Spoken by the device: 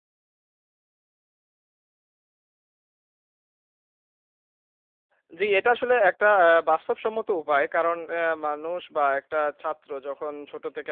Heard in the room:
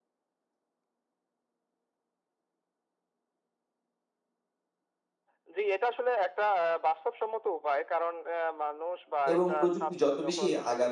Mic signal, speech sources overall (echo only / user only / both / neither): both